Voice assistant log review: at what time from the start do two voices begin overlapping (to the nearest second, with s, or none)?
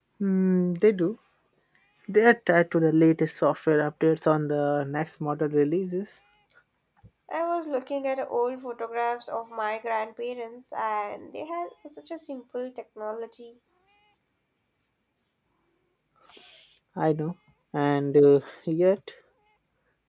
none